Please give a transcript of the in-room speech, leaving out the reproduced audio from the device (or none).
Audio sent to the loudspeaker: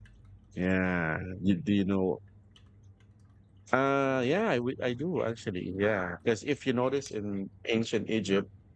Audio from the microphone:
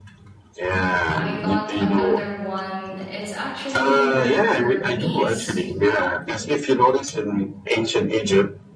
I got another one. It's actually her niece,